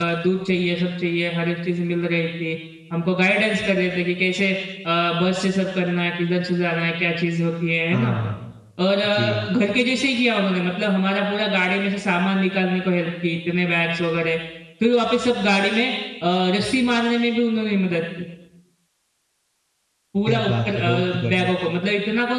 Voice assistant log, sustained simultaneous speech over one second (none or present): present